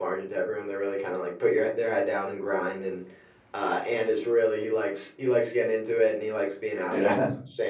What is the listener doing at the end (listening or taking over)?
listening